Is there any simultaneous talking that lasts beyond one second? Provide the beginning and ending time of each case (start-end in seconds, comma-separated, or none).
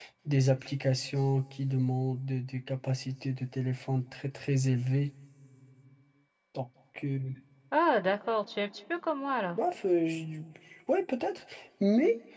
none